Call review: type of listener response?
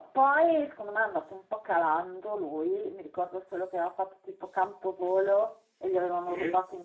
listening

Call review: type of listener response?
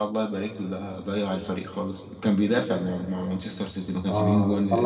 taking over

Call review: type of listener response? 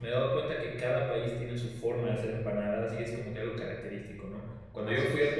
listening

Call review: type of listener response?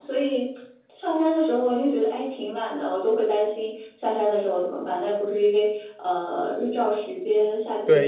taking over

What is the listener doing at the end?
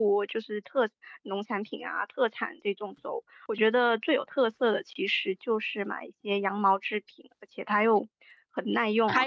taking over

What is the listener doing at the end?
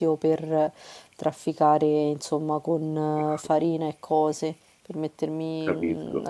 listening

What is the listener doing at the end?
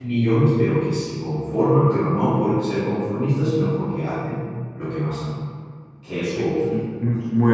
taking over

